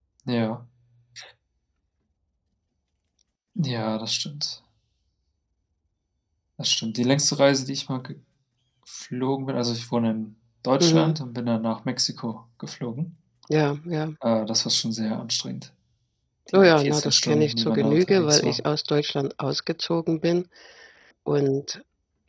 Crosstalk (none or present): present